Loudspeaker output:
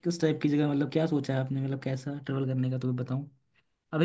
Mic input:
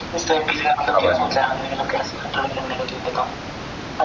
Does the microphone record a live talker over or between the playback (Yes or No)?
Yes